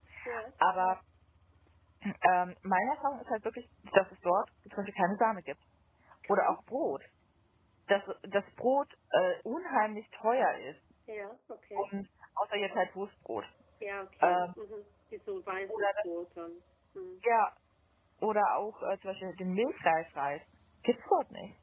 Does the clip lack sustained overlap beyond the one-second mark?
Yes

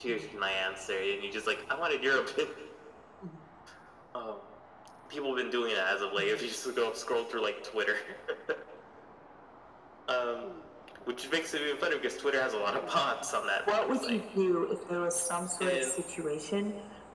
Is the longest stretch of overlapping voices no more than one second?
Yes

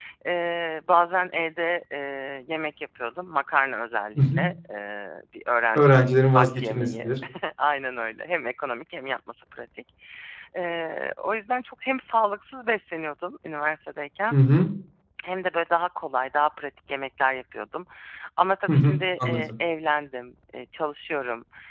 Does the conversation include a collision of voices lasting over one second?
Yes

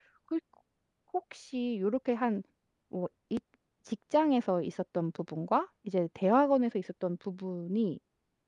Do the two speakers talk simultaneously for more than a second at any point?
No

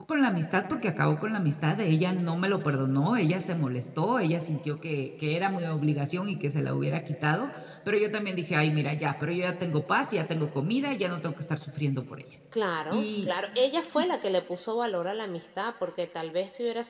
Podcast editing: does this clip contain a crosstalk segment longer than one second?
No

